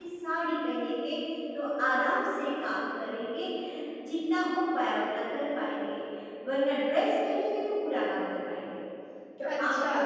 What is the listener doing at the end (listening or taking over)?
listening